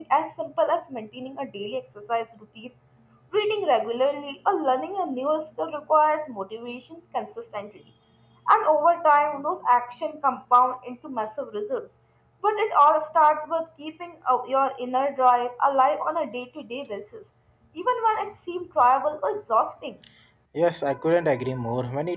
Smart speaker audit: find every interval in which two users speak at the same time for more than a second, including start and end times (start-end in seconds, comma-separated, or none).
none